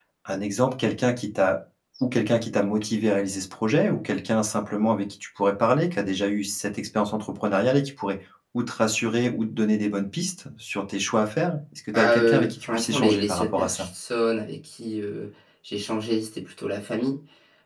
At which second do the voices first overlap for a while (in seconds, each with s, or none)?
11.9 s